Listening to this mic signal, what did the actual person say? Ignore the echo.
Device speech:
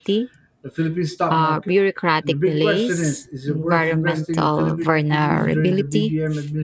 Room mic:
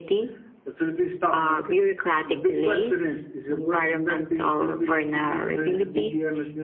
none

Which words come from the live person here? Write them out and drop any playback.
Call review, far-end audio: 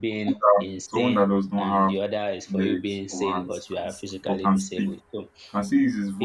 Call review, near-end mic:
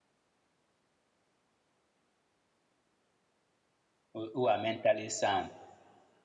who who are mentally sound,

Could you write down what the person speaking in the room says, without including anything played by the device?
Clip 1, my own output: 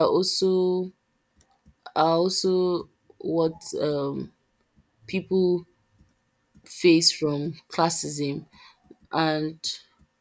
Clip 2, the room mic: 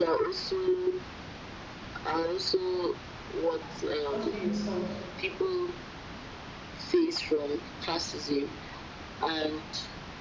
Just be yourself.

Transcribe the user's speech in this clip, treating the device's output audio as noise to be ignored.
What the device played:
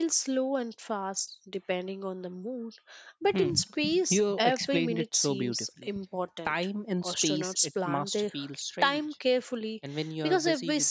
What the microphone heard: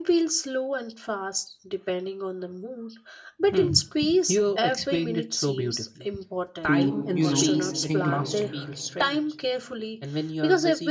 to you know think about it.

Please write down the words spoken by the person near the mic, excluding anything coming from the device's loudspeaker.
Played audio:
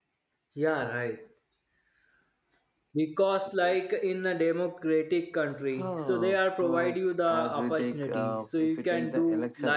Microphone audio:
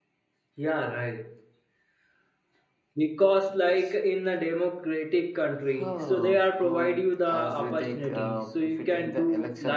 none

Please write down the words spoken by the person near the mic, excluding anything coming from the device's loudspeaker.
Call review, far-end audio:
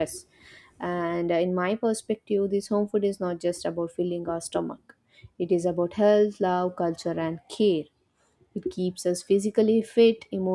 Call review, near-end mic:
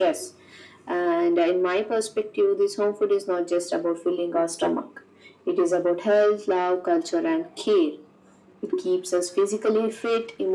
none

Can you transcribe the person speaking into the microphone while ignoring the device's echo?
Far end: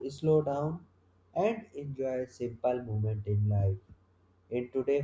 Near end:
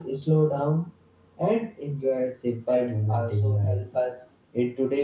pets also help us

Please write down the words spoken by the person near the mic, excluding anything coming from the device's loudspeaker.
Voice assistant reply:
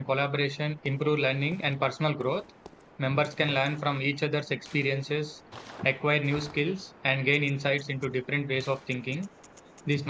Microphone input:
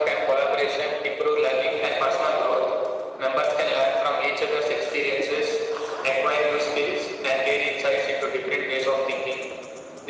none

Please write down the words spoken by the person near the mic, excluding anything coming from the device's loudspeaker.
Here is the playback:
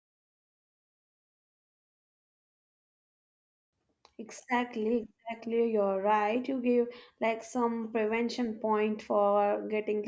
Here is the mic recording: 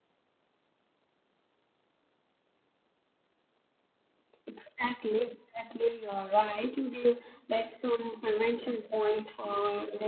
none

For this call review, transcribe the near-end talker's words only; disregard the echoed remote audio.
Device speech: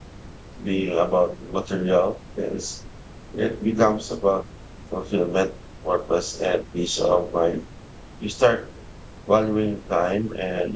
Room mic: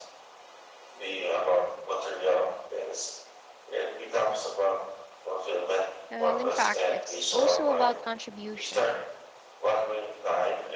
Well, in fact, it's also about contribution.

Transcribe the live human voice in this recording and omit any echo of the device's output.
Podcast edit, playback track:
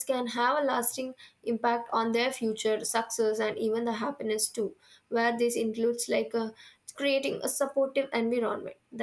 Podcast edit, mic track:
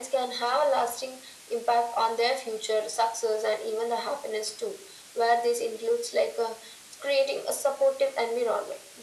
none

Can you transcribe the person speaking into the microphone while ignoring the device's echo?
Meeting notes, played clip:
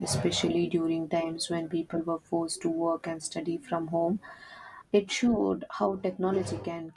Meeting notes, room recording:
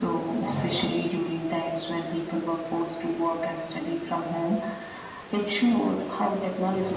none

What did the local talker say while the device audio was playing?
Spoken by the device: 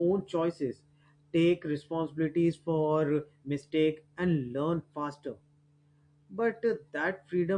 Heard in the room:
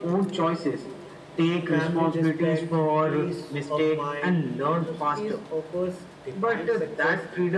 Family respect, peace of mind. Metro cities offers define success

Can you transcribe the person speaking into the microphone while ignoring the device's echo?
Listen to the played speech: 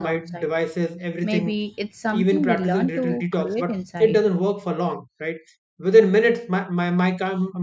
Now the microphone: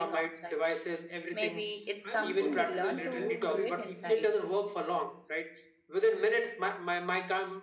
I won't call it. Uh, I won't call it sleepiness,

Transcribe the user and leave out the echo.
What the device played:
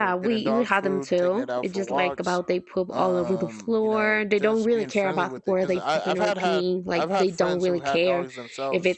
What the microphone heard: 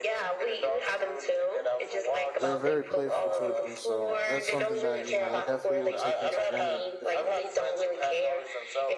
they were very playful towards me. So that's something that you know I definitely would take into granted if I,

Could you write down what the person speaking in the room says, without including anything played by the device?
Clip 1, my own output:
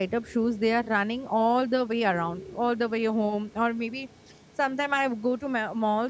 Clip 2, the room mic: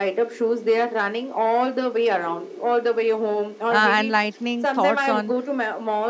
uh, enlightening thoughts on

